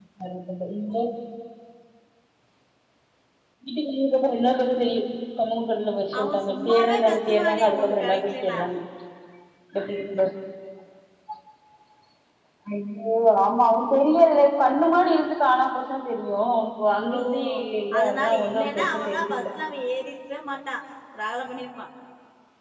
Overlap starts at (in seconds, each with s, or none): 6.2 s